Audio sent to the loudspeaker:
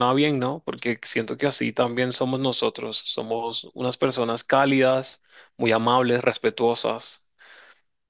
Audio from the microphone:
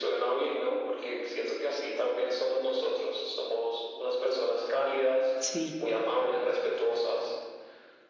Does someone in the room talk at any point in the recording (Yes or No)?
Yes